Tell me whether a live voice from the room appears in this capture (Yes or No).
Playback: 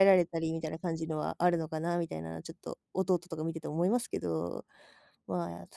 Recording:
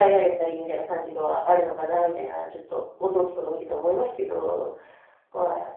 No